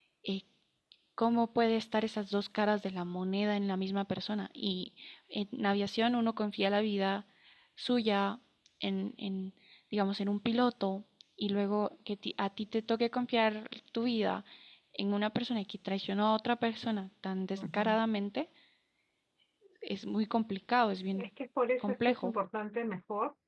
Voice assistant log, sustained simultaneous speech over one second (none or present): none